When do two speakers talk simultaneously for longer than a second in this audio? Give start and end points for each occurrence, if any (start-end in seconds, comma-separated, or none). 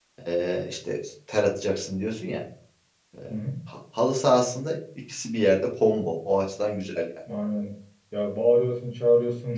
none